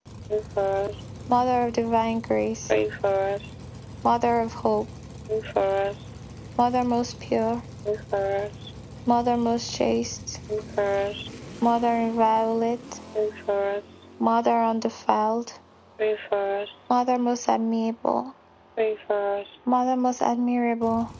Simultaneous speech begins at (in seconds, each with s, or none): none